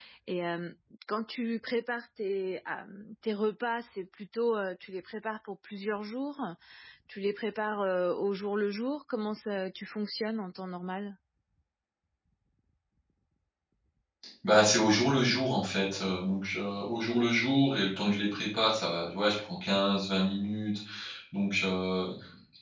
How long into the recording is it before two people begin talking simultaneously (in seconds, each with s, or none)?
none